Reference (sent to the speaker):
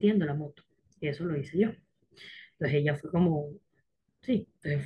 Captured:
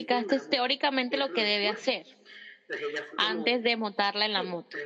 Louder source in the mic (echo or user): user